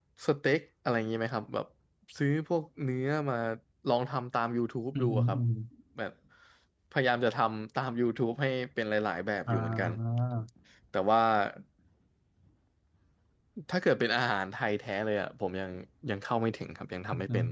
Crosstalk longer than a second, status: none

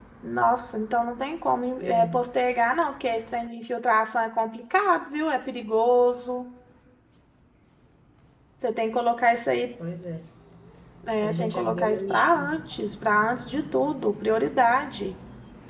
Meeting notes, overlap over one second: present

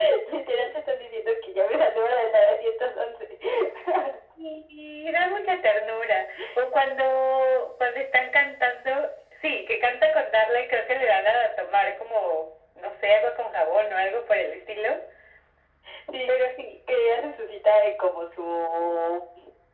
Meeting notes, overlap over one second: none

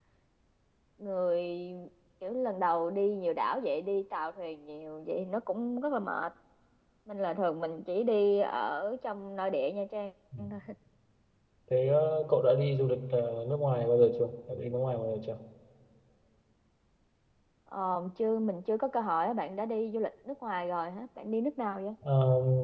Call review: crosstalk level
none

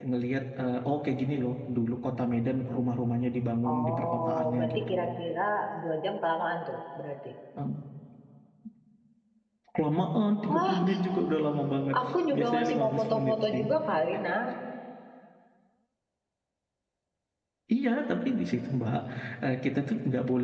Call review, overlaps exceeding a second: present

